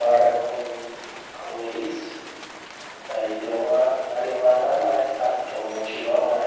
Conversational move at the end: listening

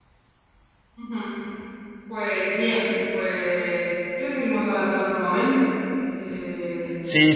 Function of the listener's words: taking over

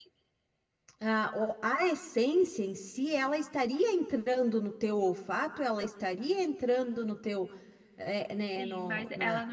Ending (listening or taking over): taking over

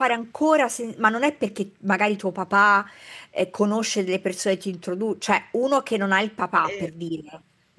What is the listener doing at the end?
listening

